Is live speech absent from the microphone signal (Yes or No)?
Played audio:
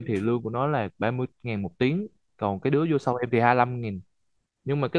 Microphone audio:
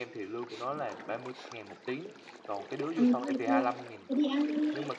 No